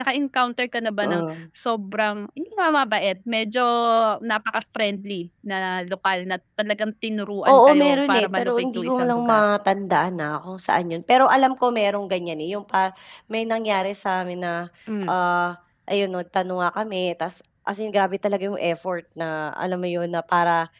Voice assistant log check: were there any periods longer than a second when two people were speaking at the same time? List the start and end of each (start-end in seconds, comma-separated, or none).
7.5-9.4